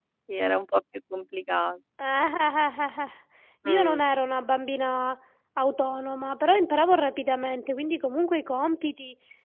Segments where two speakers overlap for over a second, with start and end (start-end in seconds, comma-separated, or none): none